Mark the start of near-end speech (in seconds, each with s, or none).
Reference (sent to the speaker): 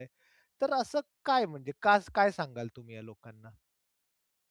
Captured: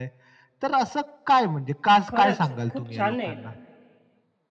2.1 s